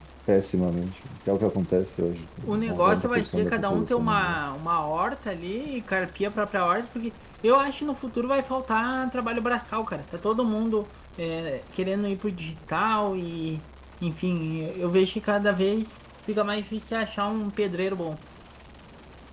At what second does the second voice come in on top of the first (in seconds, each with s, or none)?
2.4 s